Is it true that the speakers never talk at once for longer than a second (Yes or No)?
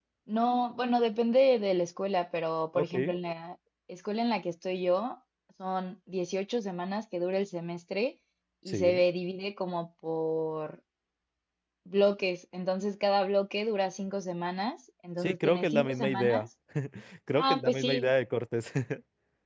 No